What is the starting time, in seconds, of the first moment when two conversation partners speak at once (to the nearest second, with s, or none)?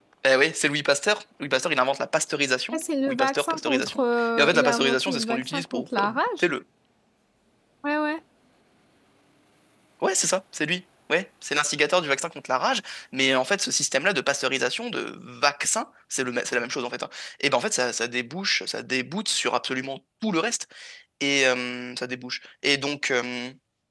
3 s